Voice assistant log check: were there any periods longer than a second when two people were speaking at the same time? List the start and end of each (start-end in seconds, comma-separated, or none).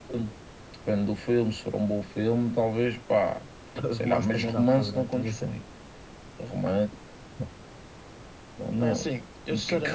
4.0-5.5